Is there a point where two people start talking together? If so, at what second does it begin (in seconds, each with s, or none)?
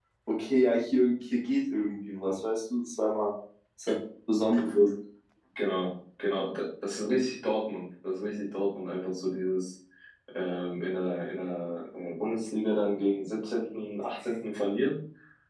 none